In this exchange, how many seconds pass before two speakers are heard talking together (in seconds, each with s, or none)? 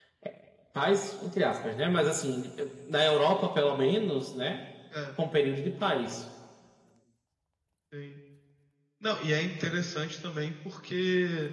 none